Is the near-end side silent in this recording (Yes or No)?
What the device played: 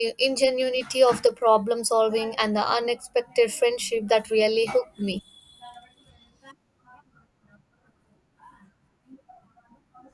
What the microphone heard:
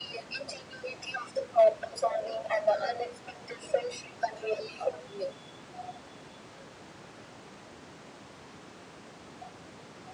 Yes